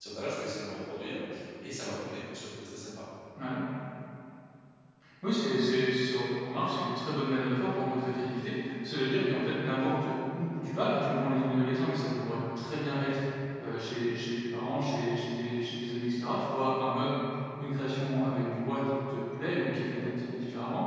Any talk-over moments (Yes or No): No